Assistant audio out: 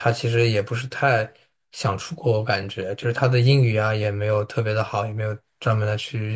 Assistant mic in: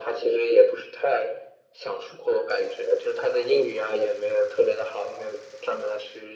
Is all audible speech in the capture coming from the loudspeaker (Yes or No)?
Yes